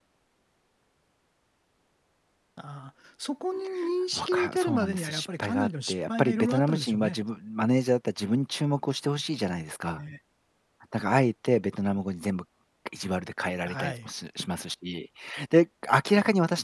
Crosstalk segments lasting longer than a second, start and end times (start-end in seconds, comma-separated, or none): 4.1-7.2